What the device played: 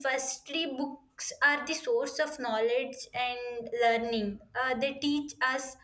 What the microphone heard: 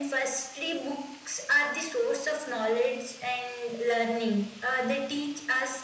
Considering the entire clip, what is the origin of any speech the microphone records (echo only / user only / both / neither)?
echo only